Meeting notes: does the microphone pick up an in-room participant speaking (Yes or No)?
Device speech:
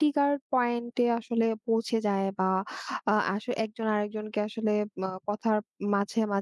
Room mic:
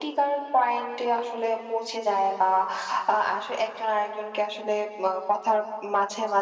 No